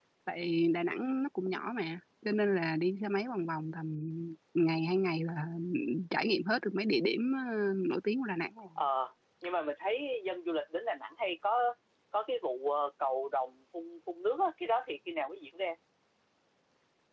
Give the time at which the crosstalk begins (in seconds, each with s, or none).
none